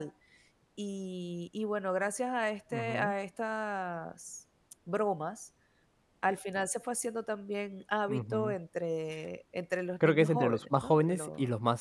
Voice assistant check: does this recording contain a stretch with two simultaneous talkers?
Yes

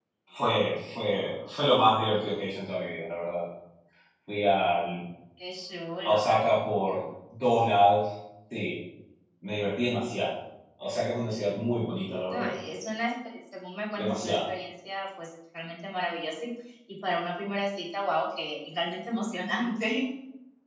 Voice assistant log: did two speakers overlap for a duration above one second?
No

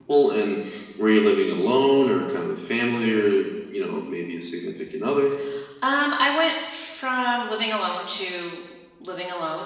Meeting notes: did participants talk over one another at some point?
No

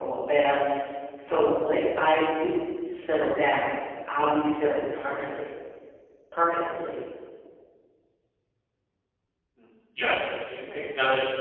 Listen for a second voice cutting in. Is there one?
No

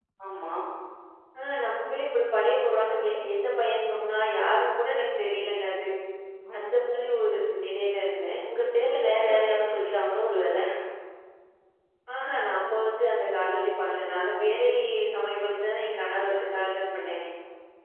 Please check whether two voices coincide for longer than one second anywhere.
No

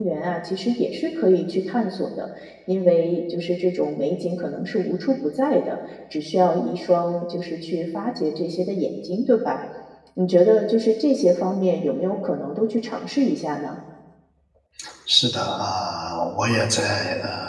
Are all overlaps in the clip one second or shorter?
Yes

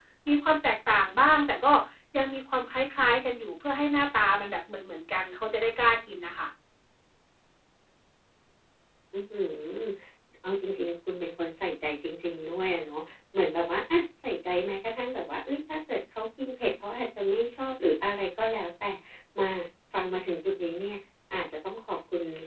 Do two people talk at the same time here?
No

